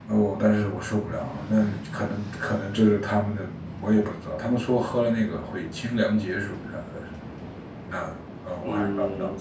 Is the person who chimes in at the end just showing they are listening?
No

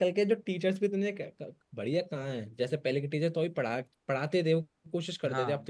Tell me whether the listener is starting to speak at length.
No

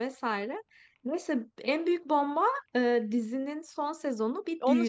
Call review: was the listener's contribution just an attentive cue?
No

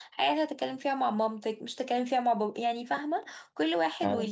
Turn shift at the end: No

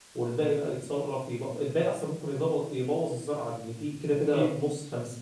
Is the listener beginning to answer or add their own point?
No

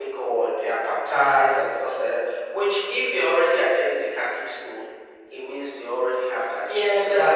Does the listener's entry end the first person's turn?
Yes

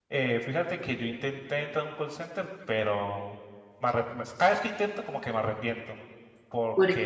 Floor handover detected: No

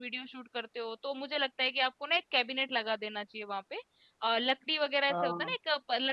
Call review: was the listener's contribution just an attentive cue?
Yes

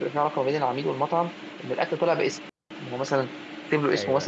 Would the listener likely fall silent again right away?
Yes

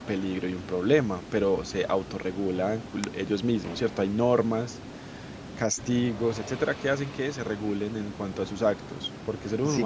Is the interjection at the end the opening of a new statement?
Yes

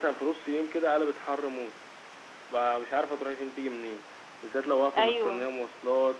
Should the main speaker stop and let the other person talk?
No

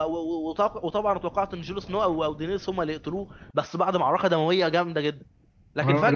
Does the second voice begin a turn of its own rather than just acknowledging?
Yes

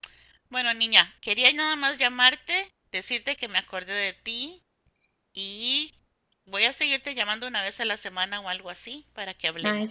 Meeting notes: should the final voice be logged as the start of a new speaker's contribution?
Yes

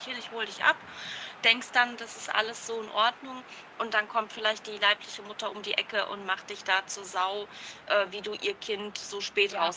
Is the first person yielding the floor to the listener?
Yes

